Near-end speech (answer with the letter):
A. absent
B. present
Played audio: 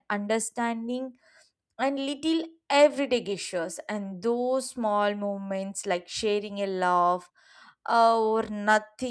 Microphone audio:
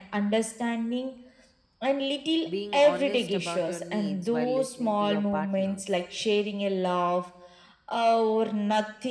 B